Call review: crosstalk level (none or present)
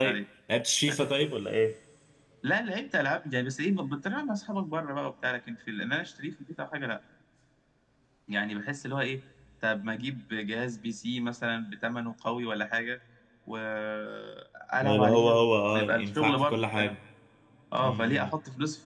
present